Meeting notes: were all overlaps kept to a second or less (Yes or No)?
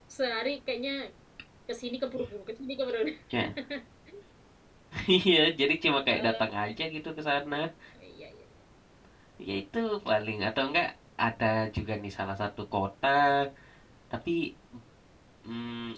Yes